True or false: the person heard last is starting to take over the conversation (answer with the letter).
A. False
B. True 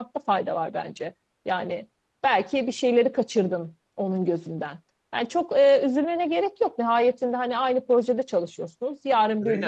A